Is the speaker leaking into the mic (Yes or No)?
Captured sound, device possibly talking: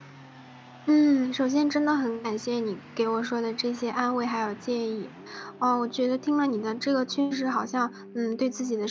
No